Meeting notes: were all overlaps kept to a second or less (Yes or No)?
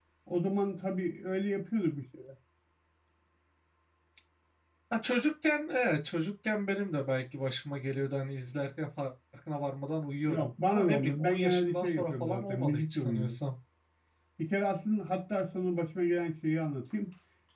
No